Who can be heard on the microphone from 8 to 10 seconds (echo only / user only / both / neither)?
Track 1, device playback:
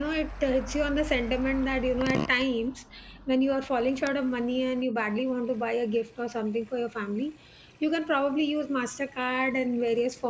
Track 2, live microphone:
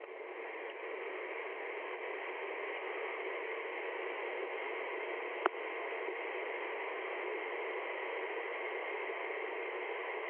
neither